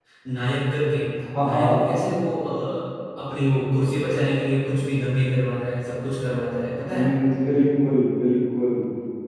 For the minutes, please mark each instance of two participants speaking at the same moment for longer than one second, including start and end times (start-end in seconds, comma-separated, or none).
none